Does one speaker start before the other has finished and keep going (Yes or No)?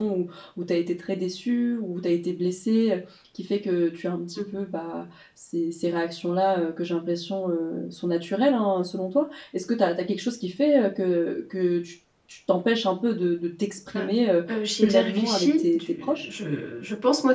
Yes